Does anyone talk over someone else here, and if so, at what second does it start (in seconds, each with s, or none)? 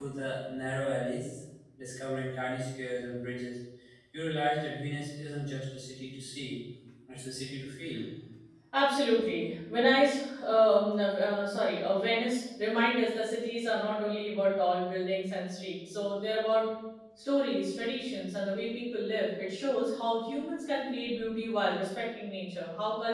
none